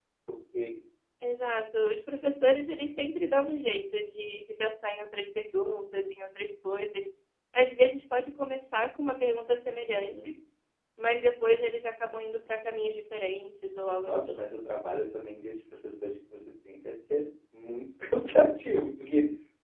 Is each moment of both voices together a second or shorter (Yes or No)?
Yes